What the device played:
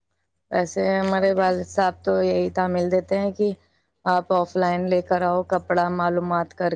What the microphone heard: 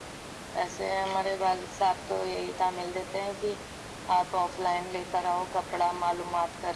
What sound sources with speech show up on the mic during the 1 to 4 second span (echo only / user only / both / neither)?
echo only